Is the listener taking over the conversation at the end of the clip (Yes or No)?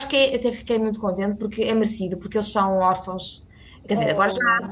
No